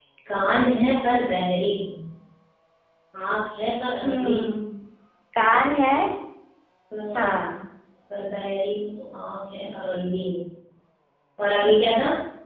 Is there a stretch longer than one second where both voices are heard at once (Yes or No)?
No